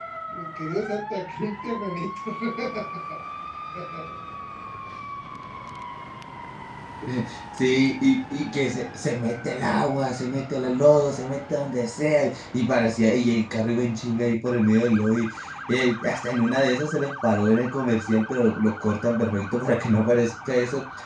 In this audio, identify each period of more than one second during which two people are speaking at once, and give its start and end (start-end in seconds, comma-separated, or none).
none